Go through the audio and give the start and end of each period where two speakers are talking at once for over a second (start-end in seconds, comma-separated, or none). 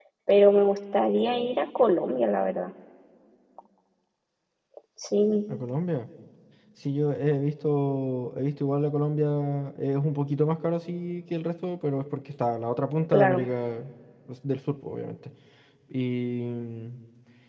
none